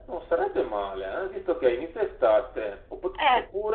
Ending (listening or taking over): listening